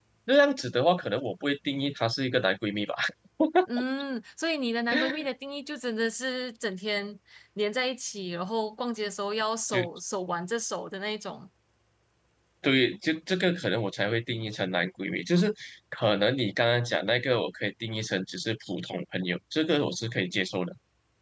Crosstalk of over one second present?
No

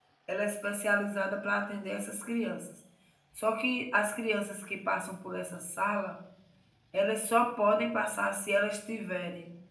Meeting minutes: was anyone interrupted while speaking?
No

